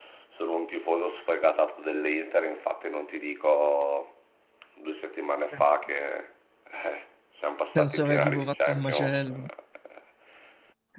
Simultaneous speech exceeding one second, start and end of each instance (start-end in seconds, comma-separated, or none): 7.8-9.2